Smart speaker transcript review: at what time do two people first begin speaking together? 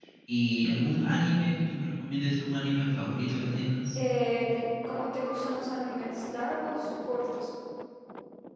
none

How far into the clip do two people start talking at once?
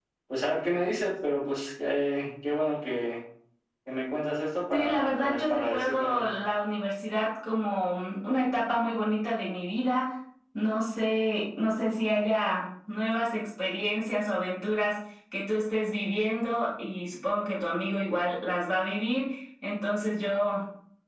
5 s

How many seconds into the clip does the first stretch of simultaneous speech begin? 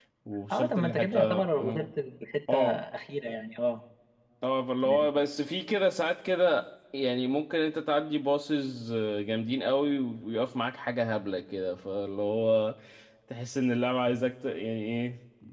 1 s

